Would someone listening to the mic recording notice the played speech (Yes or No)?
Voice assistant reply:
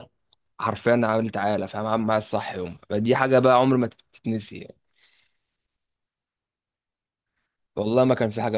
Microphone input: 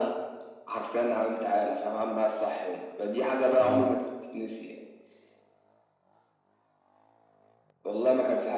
Yes